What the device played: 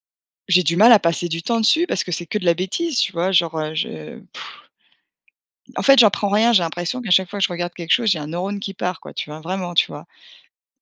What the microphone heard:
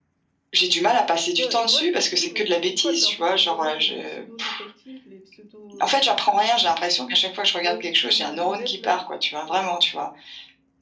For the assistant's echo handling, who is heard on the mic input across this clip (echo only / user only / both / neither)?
both